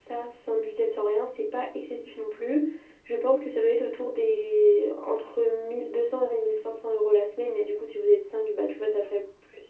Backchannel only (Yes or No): Yes